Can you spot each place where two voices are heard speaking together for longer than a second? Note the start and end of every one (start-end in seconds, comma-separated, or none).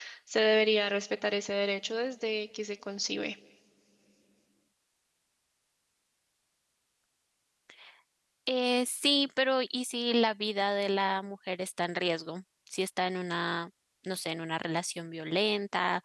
none